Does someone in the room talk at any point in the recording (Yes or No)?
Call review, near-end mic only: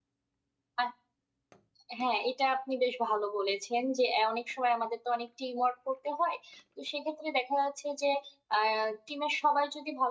Yes